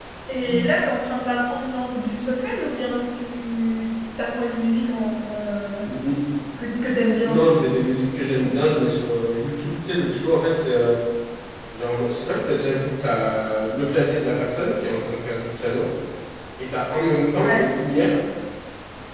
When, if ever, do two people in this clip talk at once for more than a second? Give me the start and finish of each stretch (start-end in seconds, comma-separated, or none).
none